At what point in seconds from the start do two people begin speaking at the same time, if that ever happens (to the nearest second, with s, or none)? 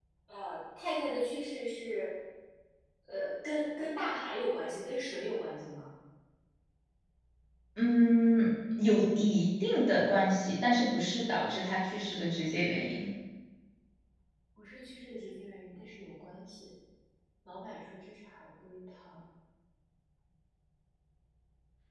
none